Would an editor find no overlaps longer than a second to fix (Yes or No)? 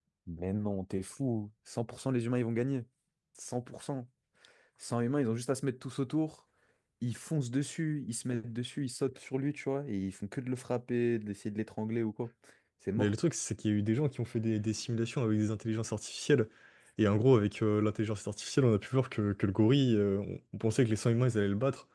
Yes